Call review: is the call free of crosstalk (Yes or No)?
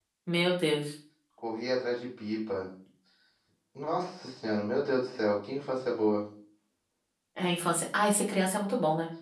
Yes